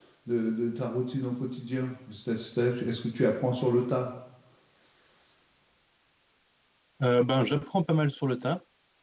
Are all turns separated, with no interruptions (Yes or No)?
Yes